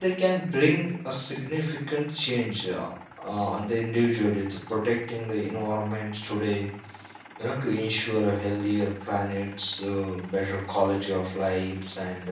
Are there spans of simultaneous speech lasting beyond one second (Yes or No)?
No